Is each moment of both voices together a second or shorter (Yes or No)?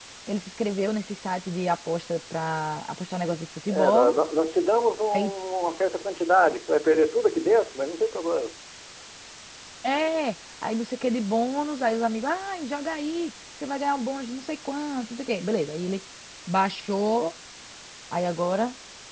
Yes